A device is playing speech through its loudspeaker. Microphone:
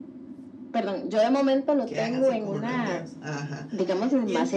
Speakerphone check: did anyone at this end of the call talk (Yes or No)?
Yes